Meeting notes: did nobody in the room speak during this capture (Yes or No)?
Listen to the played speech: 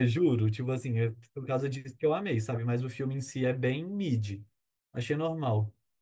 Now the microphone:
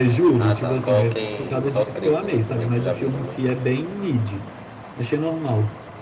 No